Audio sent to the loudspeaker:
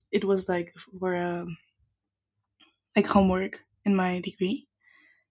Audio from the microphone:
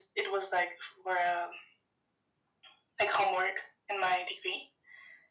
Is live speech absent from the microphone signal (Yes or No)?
Yes